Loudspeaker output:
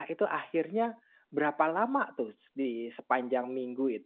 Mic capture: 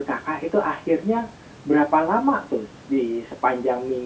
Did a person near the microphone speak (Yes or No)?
No